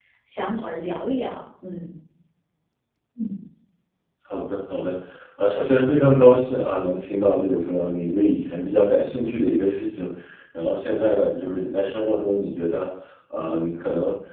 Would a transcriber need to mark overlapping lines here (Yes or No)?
No